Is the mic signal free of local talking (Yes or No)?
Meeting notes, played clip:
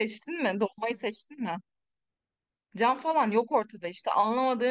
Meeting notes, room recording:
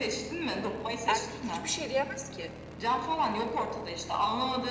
No